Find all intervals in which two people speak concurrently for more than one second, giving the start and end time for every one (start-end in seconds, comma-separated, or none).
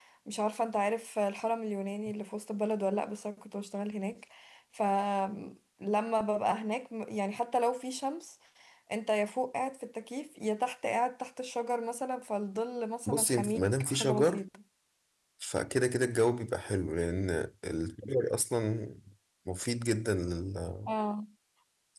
13.1-14.4